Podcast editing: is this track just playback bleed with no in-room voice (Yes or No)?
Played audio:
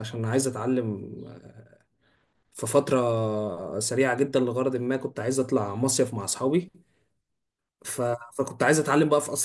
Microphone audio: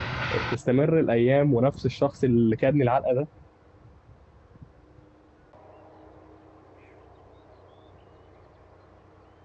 No